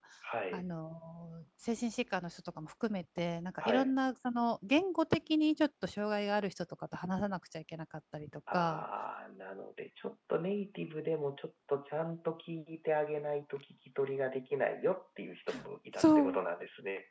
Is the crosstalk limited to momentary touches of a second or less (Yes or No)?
Yes